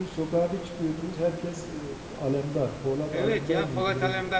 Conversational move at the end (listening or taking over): taking over